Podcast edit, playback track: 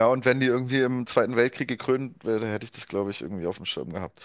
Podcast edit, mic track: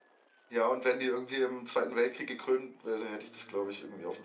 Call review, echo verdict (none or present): present